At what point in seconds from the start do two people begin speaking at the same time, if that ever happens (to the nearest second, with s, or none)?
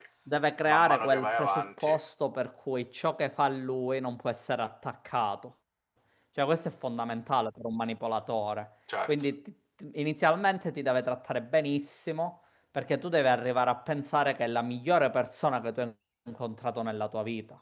1 s